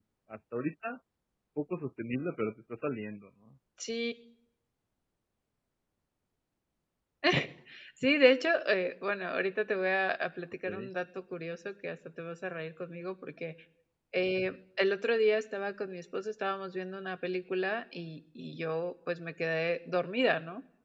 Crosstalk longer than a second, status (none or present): none